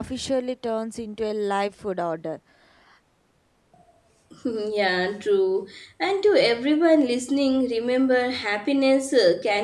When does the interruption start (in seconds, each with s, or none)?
none